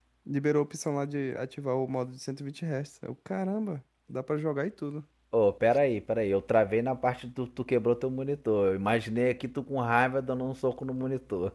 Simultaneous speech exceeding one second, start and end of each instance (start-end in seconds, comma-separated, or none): none